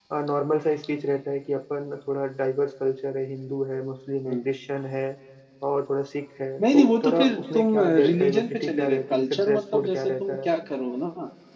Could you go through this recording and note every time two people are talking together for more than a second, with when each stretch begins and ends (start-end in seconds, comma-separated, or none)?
6.6-10.5